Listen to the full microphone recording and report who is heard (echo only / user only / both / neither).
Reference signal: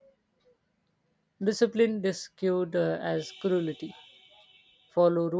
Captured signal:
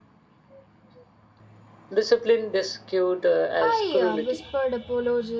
both